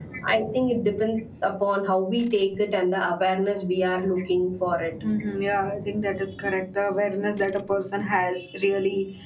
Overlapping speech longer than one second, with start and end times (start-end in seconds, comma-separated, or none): none